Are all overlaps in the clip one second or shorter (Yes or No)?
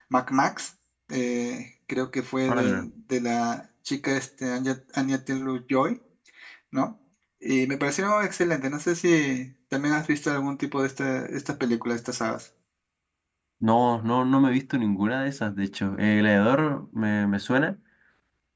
Yes